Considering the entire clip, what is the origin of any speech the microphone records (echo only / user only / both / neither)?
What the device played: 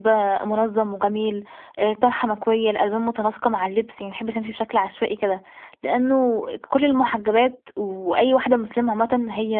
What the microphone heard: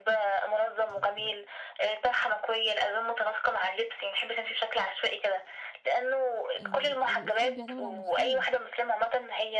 both